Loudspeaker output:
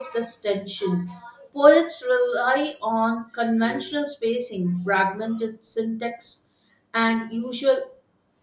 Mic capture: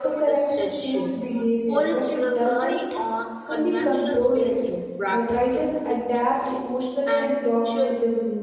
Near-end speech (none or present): present